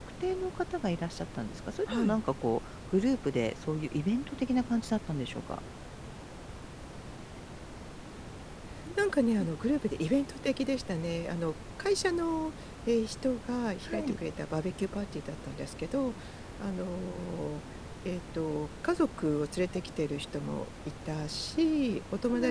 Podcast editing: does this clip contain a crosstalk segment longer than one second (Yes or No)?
No